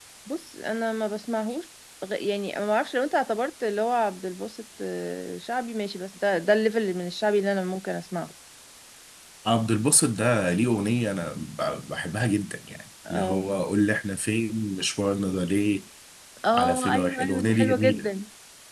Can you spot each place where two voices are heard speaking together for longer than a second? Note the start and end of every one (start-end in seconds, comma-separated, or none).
16.5-18.1